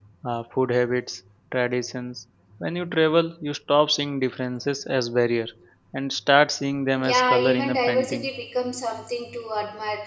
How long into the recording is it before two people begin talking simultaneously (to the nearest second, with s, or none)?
7 s